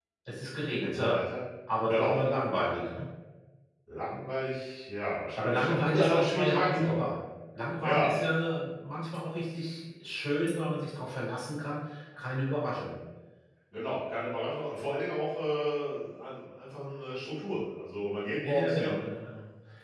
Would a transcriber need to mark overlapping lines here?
Yes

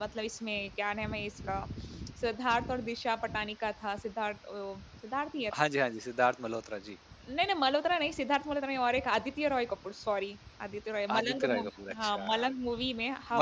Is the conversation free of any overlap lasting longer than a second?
No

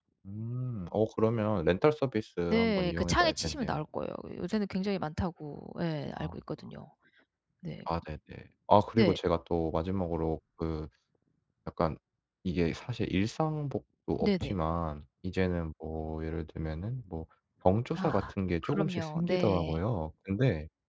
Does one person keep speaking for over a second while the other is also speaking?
Yes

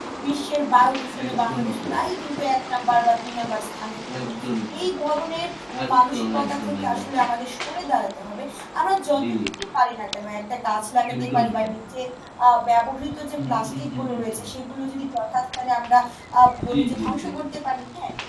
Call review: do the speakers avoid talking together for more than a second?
No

